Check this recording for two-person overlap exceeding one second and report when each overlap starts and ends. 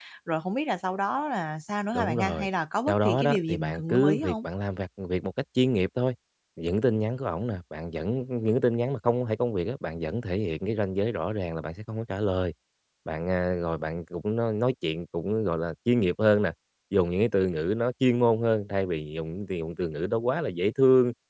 2.9-4.4

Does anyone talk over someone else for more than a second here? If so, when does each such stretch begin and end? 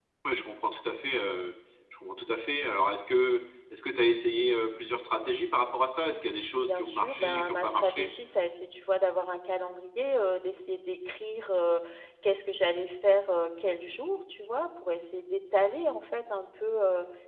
6.6-8.1

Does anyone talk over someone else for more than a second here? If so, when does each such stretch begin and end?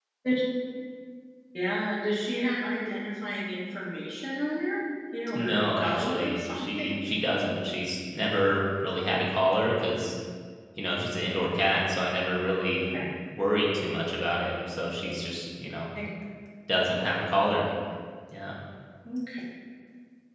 5.3-7.0

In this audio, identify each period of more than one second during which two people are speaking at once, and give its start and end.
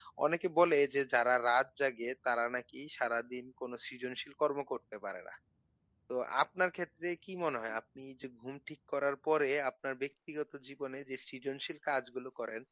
none

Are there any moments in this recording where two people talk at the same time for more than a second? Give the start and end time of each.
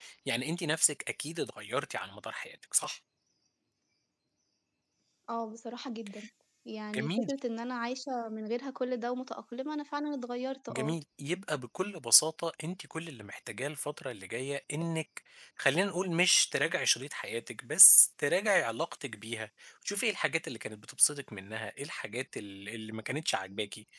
none

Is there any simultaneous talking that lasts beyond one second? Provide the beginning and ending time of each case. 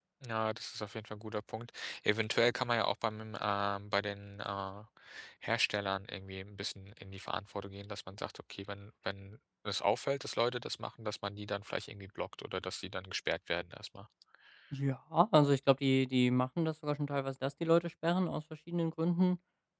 none

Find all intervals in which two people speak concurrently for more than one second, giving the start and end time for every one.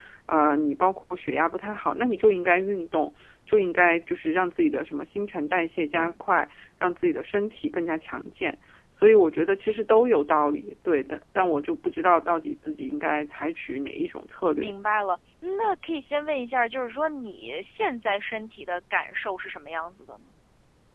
none

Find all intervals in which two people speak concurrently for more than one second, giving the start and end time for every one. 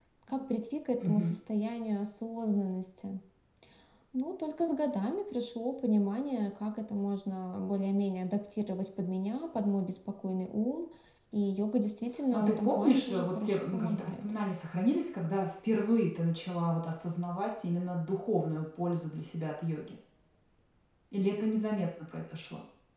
12.3-14.2

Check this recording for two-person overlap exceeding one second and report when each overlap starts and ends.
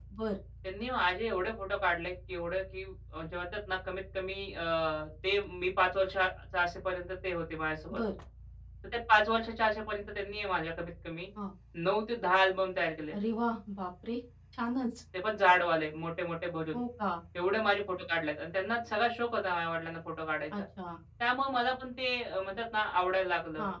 none

